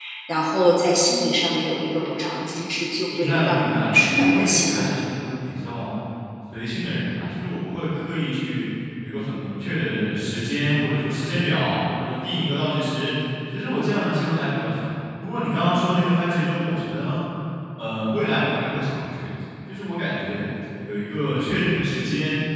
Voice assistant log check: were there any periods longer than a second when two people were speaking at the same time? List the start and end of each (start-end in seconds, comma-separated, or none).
3.1-4.9